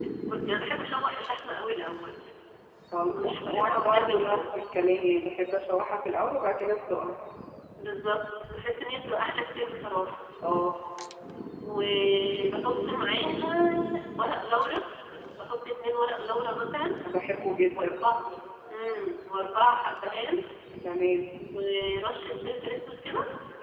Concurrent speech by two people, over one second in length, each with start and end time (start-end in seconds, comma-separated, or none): 3.1-4.4